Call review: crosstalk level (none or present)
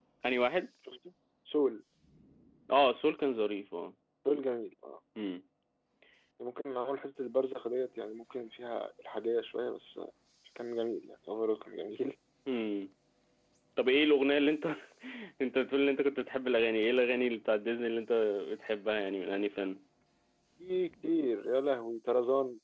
none